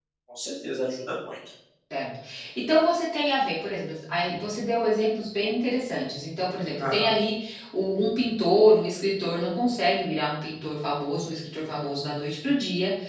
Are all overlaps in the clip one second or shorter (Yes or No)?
Yes